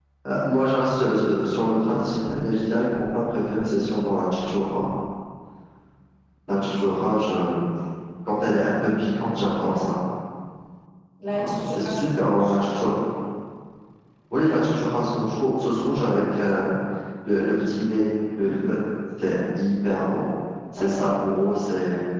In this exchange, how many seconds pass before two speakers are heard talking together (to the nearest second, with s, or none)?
11 s